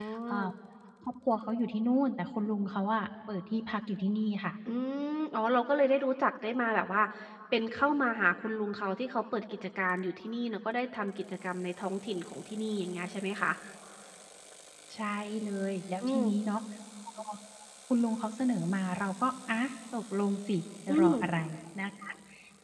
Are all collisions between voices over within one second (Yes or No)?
Yes